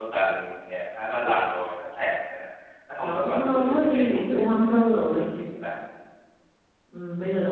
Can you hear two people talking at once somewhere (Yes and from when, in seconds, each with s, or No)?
Yes, from 3.0 s